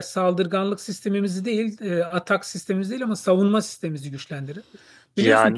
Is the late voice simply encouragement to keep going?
Yes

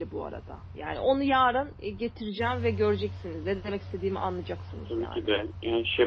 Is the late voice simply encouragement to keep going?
No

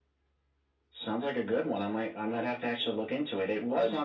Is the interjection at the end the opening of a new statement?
No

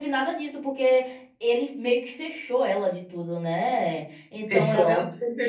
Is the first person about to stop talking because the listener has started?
Yes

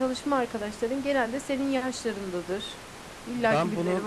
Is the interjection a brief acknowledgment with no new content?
No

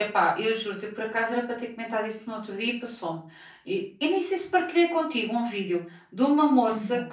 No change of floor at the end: Yes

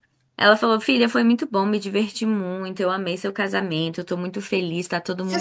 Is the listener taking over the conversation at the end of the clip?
Yes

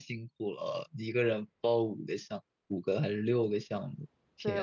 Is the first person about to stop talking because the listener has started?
Yes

